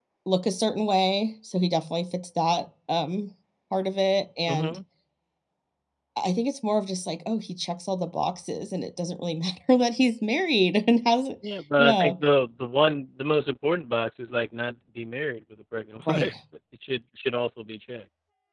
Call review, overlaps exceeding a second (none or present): none